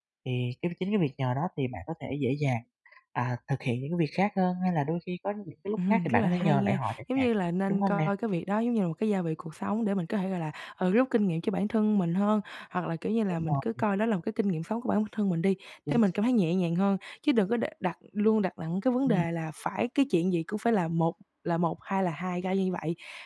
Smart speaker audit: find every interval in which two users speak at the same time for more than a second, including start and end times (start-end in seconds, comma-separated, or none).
5.9-7.3